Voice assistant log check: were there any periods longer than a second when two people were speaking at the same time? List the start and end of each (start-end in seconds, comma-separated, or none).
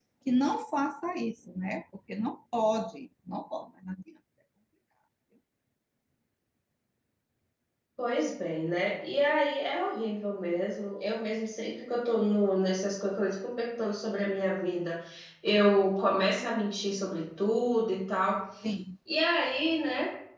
none